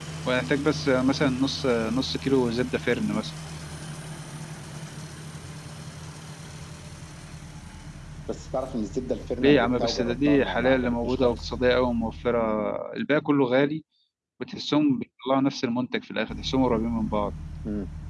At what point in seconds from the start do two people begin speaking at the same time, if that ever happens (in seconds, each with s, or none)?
9.4 s